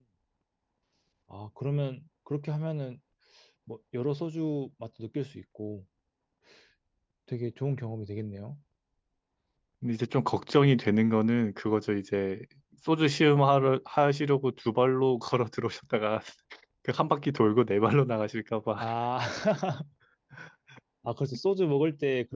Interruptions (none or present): none